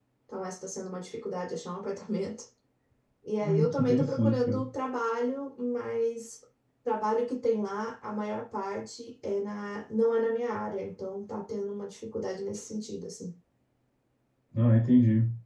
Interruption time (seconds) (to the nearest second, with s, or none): 3 s